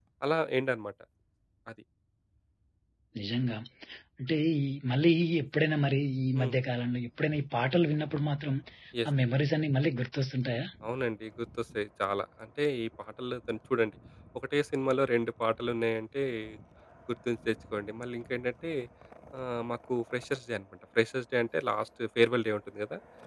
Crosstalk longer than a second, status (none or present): none